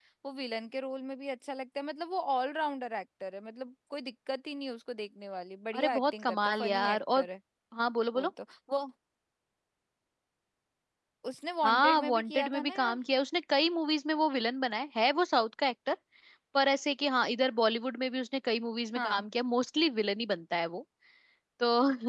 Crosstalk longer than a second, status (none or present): present